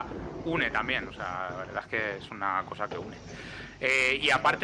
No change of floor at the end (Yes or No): Yes